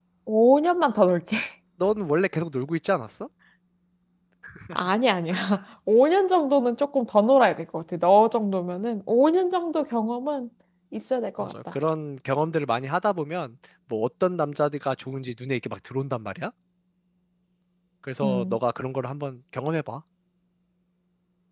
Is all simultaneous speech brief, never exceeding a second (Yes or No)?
Yes